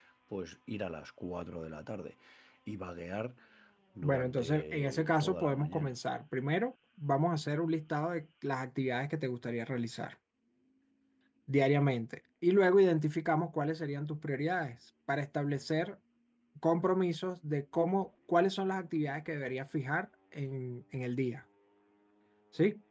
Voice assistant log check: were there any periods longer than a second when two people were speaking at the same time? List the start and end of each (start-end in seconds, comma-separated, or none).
4.0-5.9